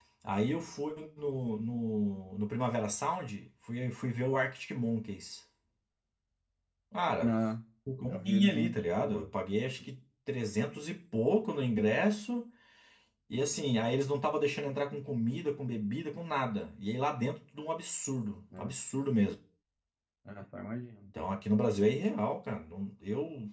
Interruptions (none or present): present